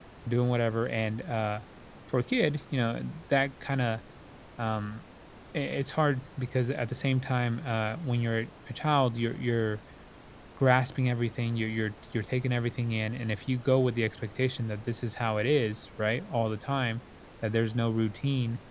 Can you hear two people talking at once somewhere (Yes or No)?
No